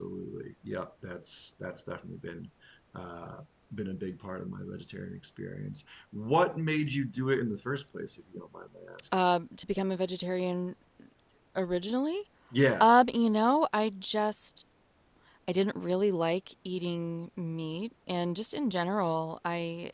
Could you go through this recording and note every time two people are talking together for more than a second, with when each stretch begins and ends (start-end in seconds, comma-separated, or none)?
none